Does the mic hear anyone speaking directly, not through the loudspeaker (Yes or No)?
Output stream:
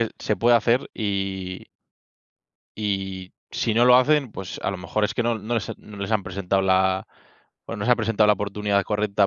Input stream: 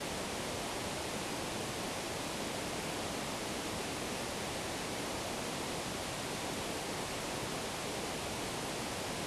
No